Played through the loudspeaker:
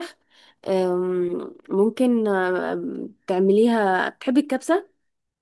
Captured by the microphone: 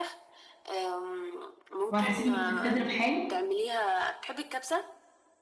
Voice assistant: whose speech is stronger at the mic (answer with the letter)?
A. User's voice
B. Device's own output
A